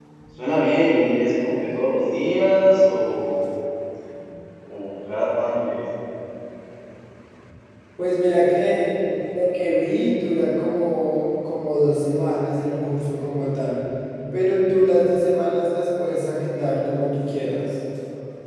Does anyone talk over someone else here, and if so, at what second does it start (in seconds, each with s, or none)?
none